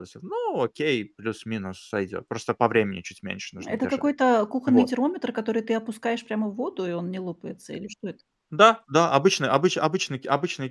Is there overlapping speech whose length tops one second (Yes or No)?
No